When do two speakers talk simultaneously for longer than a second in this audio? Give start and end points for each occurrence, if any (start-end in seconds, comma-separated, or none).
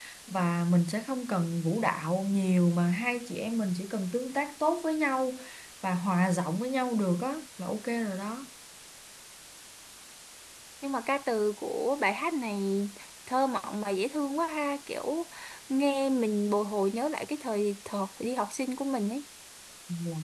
none